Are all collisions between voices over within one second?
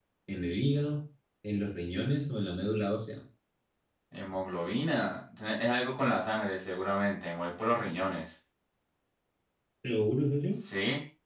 Yes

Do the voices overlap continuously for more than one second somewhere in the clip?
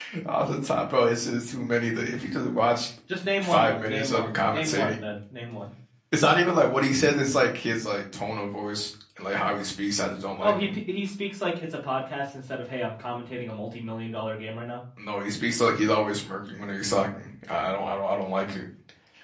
Yes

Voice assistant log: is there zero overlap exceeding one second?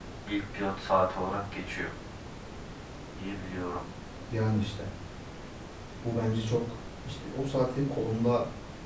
Yes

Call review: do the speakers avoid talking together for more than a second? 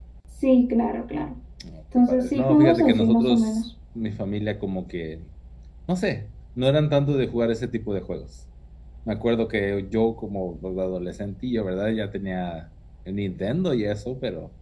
No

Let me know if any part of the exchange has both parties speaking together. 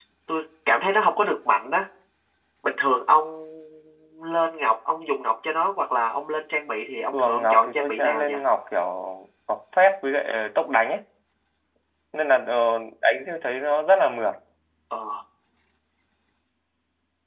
Yes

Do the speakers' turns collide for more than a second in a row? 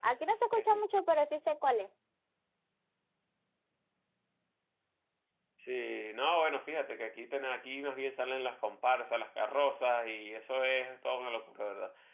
No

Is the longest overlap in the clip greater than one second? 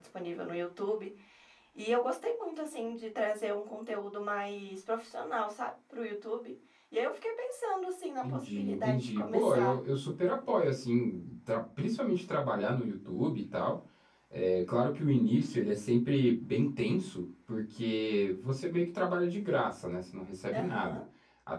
Yes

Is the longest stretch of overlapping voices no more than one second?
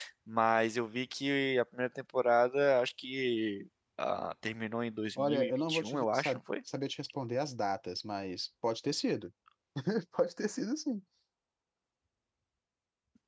No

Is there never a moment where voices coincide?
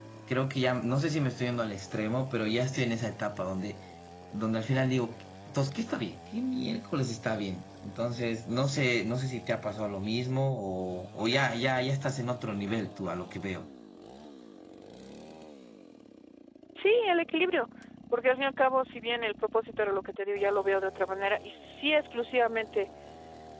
Yes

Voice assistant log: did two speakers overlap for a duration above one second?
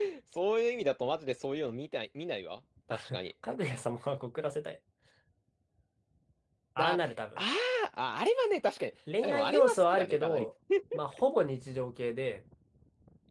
Yes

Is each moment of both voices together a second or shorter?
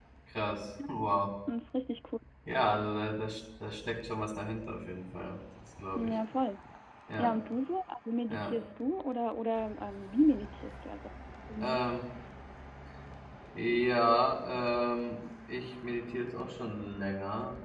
Yes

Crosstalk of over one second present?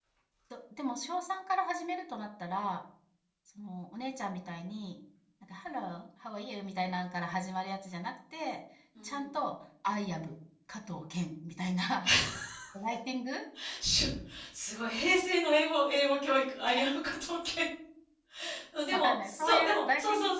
Yes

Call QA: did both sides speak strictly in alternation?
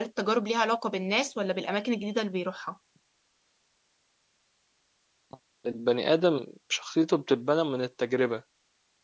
Yes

